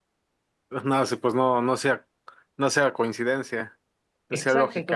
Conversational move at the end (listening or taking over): taking over